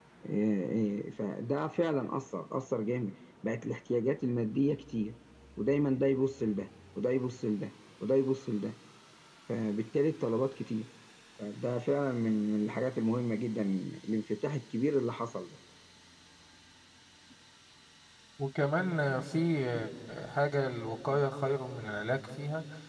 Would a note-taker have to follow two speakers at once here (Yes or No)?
No